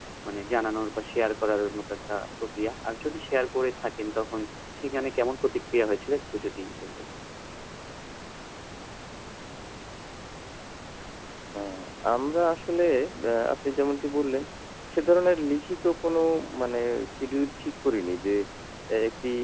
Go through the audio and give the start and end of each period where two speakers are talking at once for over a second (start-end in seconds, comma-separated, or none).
none